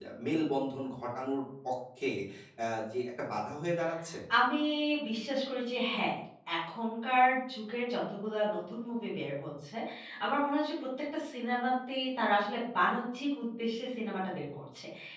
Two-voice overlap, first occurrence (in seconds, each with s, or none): none